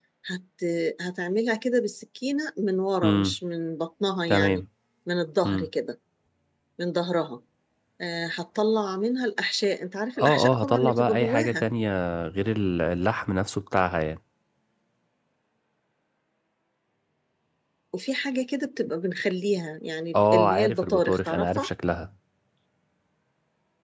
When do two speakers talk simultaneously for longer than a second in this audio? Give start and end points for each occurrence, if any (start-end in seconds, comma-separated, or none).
10.2-11.6, 20.1-21.7